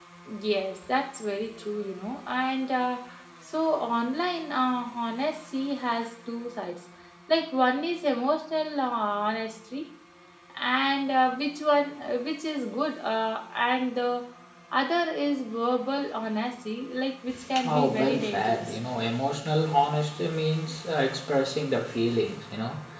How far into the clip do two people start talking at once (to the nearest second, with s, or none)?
18 s